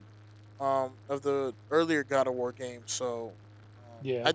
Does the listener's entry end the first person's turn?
No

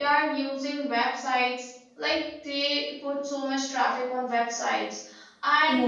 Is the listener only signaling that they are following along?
Yes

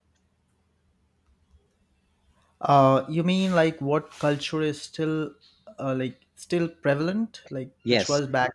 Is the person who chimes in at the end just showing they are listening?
No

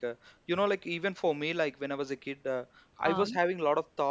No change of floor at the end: Yes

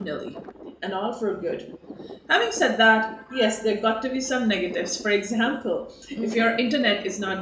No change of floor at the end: Yes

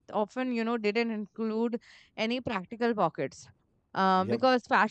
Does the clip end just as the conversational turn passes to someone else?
No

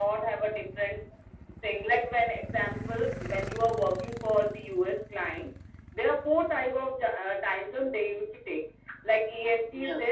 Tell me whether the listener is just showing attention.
Yes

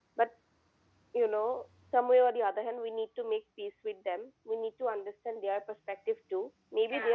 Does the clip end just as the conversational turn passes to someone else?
No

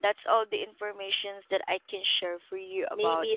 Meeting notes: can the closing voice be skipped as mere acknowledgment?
No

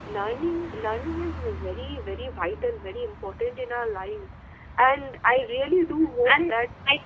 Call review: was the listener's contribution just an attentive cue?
No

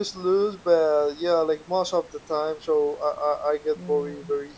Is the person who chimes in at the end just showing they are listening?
Yes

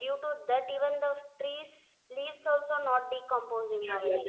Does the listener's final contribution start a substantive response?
Yes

